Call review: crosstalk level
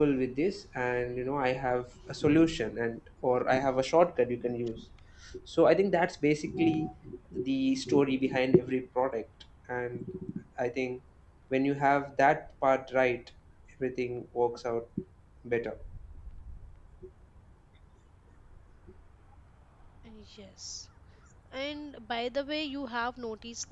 none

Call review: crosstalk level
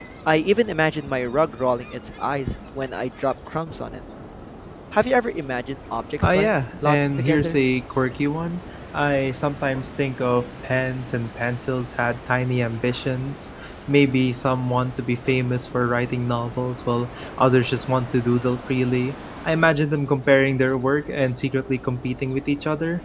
present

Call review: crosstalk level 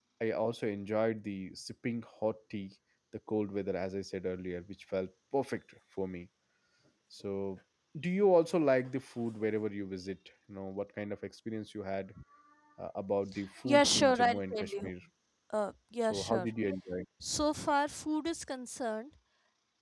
present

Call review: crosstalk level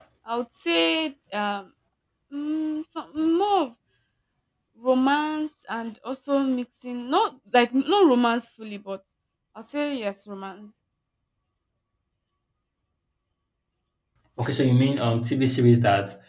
none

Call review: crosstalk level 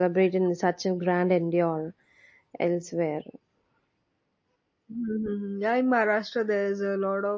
none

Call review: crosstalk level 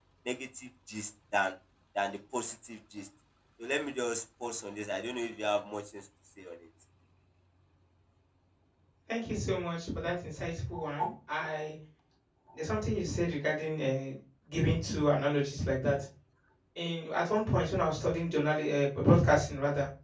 none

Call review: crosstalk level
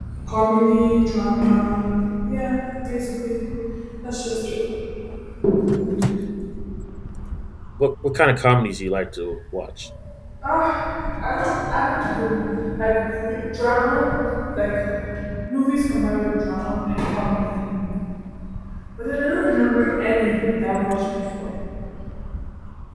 none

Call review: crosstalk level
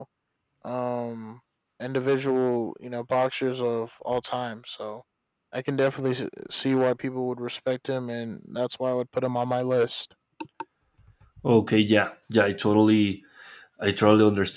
none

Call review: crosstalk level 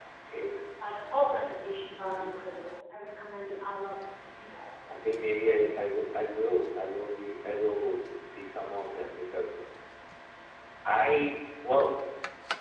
none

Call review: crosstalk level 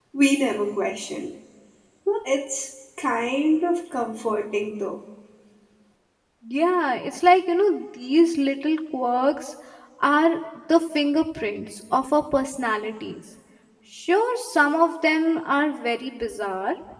none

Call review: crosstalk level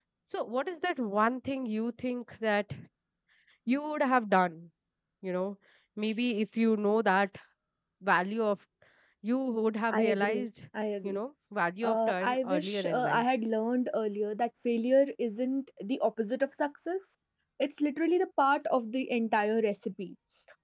present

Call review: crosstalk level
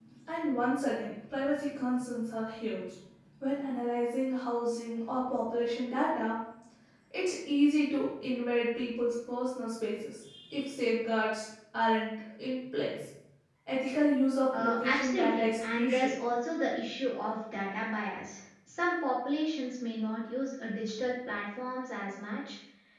present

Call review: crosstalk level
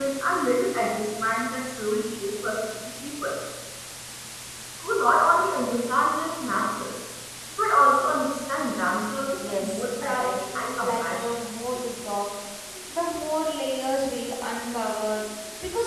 present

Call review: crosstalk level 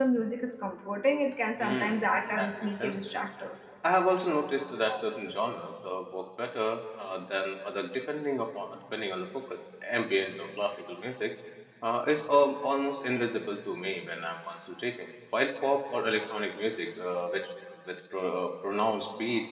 present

